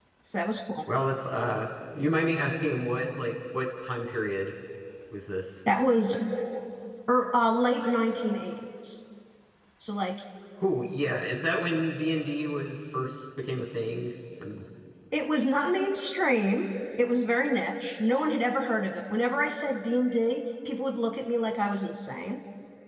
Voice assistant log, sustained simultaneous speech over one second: none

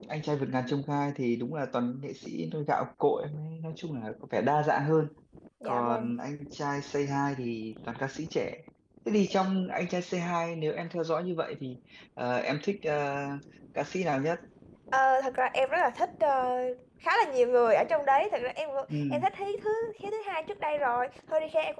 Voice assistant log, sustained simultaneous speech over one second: none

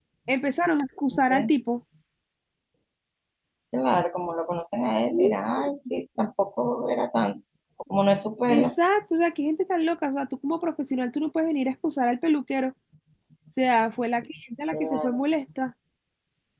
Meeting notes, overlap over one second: none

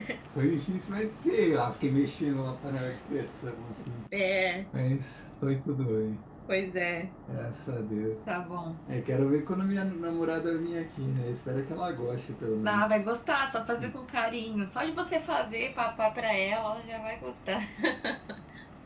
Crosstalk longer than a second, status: none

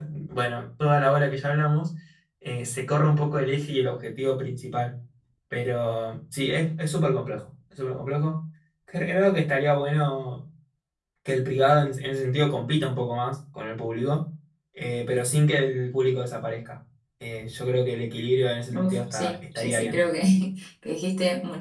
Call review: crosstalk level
present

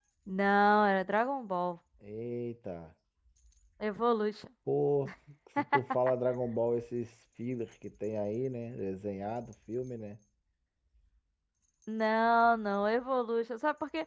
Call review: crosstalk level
none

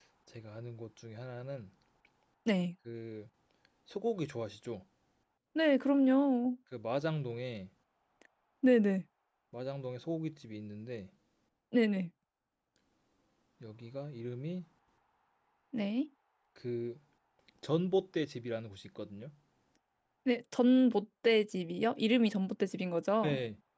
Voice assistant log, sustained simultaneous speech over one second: none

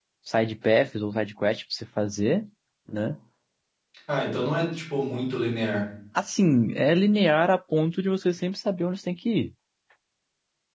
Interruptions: none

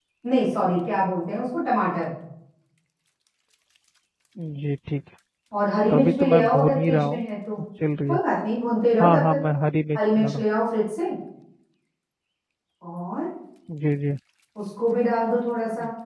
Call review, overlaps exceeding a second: present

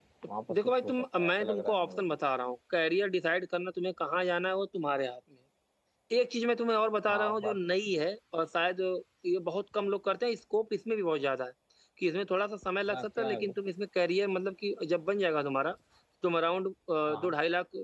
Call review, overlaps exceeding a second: present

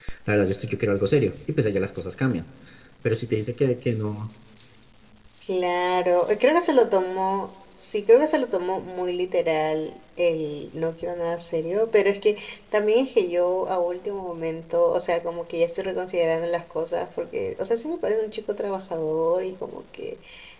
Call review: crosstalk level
none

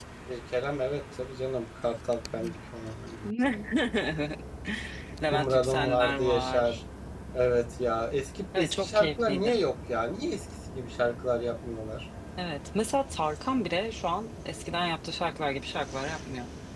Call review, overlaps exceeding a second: present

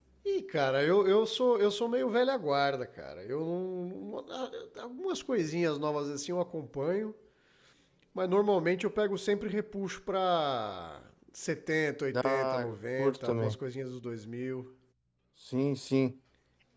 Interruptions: present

